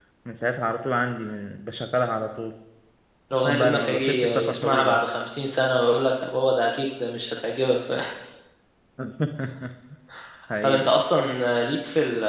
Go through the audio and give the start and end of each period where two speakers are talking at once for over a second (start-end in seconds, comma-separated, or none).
3.4-5.0